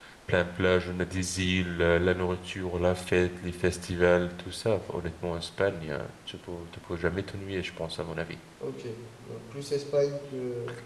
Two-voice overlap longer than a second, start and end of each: none

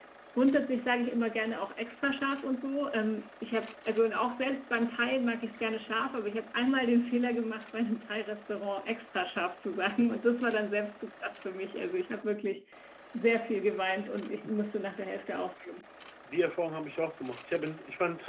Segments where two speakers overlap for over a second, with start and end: none

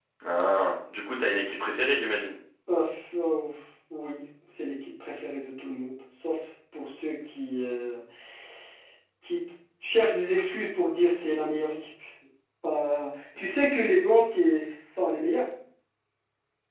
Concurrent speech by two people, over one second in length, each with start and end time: none

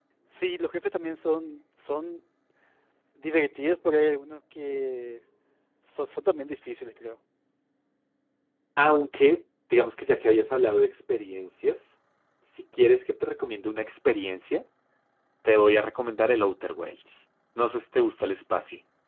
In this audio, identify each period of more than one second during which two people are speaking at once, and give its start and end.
none

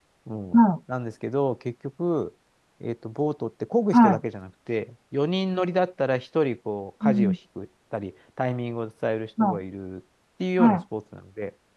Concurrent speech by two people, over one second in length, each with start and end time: none

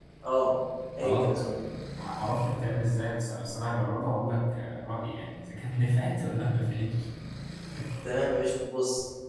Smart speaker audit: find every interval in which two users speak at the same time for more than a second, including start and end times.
none

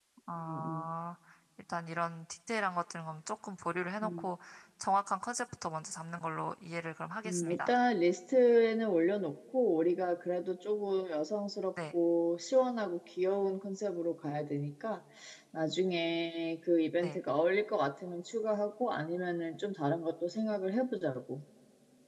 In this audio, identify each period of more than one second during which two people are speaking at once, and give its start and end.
none

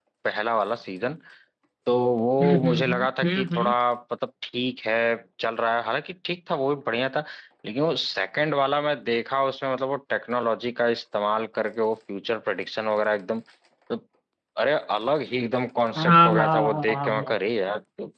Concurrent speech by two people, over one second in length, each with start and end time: 2.4-3.7, 16.0-17.3

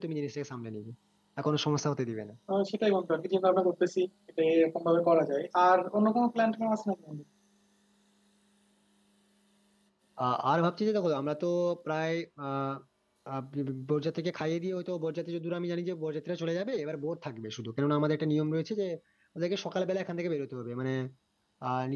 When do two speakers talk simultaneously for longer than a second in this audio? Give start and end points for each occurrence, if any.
none

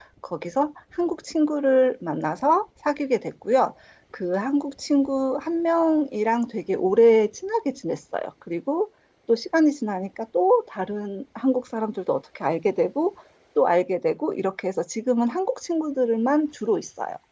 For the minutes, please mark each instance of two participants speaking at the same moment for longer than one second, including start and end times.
none

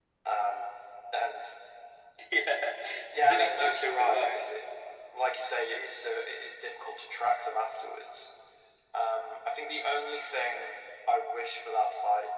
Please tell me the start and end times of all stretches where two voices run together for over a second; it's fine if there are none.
3.1-4.4

